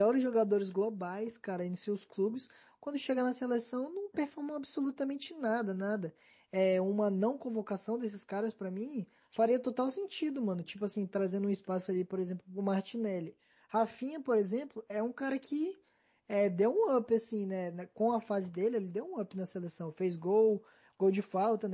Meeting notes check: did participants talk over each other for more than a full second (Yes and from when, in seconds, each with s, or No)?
No